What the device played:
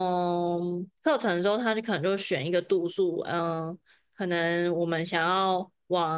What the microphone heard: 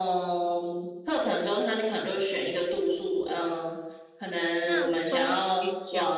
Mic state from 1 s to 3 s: echo only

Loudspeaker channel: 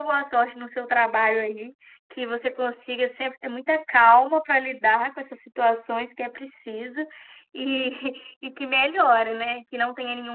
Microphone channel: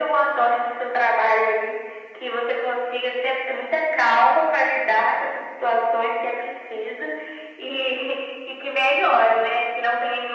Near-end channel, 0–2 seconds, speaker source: echo only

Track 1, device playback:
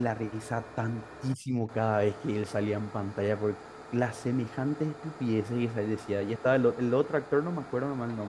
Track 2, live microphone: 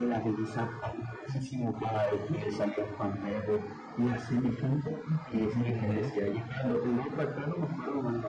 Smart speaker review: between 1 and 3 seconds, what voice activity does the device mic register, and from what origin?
echo only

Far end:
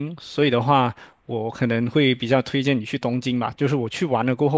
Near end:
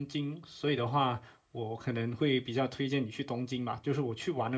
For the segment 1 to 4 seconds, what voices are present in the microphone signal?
echo only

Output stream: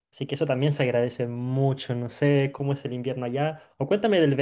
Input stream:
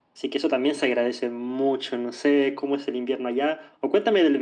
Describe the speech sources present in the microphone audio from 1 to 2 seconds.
echo only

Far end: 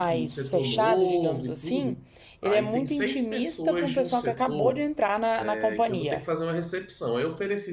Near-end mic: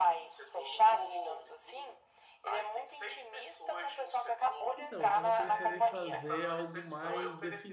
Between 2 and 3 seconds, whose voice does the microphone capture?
echo only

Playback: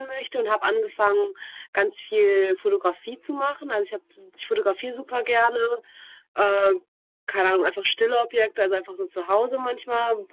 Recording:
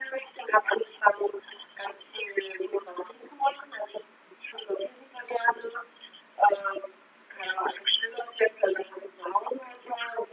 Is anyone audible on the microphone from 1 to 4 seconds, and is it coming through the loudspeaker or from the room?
echo only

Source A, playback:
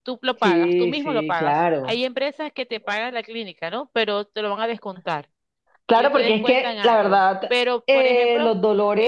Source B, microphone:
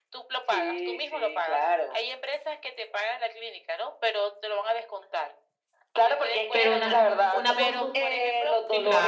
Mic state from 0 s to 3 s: echo only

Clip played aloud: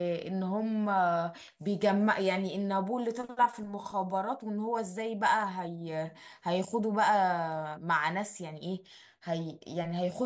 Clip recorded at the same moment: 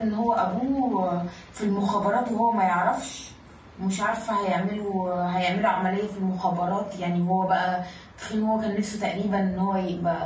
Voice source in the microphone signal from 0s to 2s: user only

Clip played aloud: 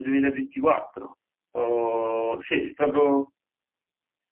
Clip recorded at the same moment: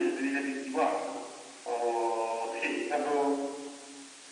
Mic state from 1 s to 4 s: echo only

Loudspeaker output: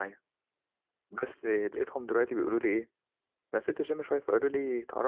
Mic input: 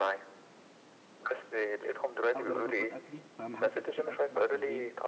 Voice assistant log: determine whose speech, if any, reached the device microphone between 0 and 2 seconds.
echo only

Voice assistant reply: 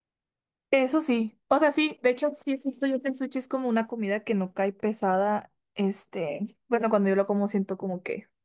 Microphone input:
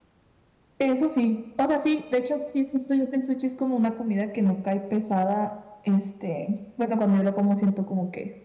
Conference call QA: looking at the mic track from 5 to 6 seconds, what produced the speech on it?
echo only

